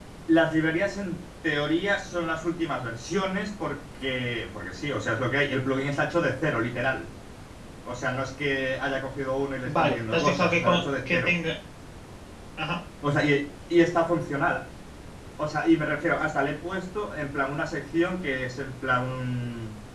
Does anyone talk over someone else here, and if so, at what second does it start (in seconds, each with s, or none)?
9.6 s